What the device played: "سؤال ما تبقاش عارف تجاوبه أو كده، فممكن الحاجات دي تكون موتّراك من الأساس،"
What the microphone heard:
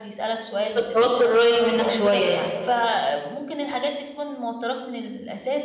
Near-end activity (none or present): present